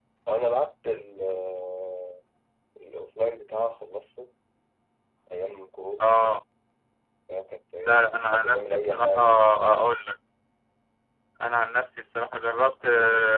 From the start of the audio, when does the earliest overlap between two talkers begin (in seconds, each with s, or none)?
7.8 s